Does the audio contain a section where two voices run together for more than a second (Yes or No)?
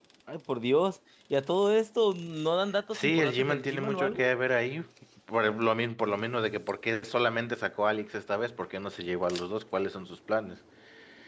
Yes